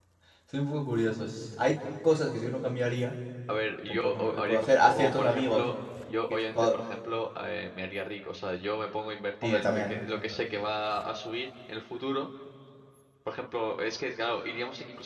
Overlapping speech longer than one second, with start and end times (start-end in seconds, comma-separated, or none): 3.9-5.6